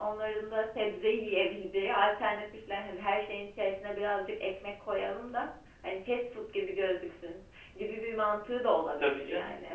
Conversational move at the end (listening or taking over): taking over